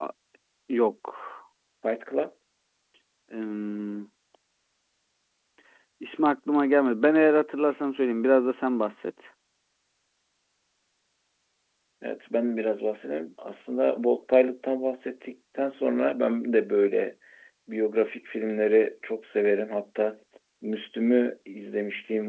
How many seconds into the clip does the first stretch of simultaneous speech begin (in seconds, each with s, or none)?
none